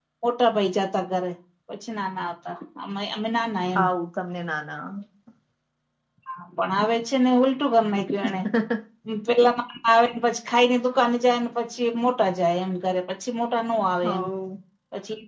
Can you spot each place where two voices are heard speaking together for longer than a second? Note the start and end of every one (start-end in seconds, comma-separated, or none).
none